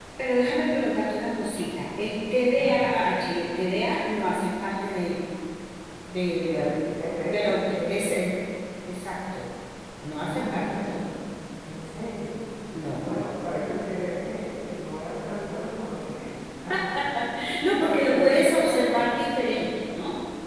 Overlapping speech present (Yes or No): Yes